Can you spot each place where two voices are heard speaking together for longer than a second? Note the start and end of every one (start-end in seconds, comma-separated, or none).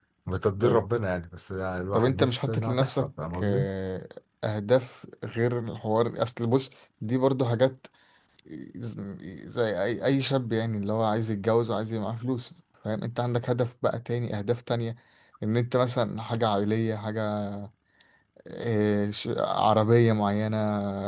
1.9-3.6